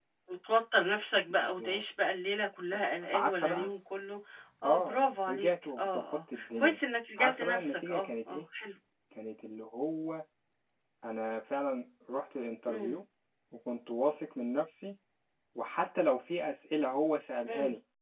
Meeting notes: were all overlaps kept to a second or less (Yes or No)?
No